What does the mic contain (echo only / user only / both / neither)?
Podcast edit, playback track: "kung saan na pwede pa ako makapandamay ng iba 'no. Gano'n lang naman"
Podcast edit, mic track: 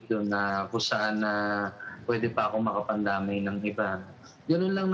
echo only